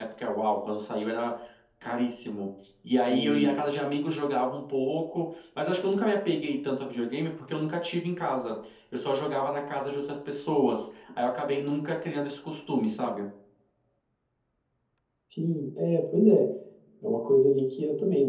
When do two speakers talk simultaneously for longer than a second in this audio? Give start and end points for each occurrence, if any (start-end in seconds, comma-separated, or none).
none